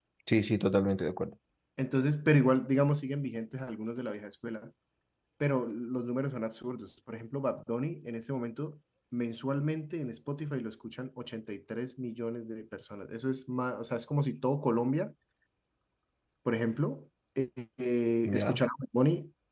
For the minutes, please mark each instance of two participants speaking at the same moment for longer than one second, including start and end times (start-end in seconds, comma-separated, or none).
none